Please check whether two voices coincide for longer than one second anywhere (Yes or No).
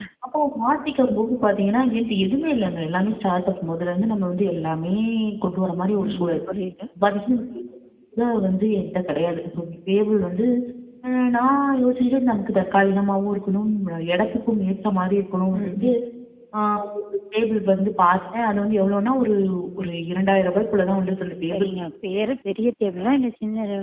No